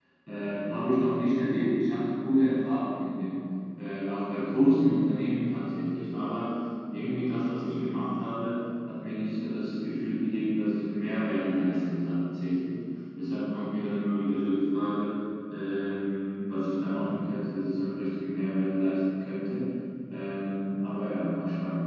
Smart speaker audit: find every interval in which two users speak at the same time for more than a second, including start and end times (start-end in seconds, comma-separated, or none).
none